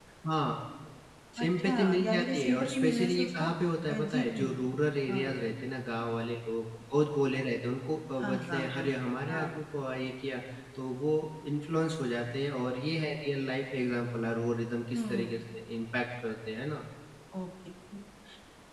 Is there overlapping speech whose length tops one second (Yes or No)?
Yes